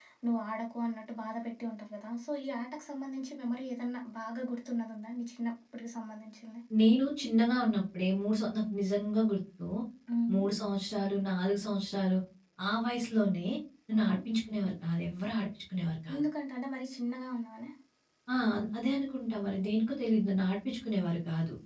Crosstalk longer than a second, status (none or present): none